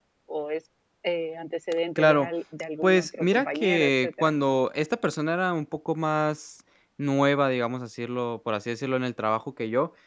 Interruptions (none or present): present